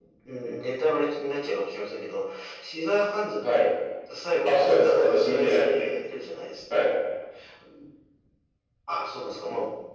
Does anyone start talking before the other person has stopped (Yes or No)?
Yes